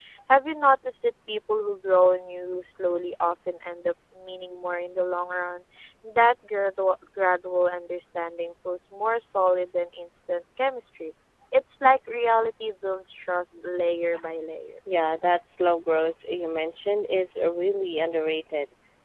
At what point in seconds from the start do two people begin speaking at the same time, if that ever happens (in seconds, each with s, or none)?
none